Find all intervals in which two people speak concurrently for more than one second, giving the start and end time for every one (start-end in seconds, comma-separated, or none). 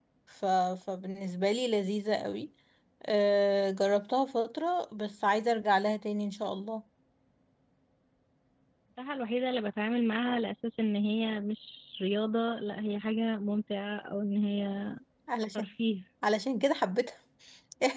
none